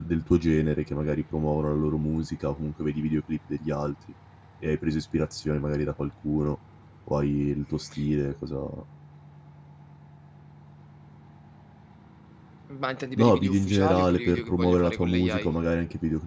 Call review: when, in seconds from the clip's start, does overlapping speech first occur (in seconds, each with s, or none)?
13.2 s